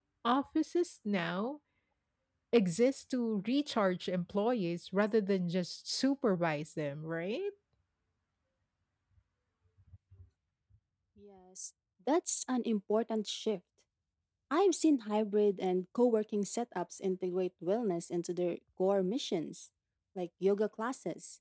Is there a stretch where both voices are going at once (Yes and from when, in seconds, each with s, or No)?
No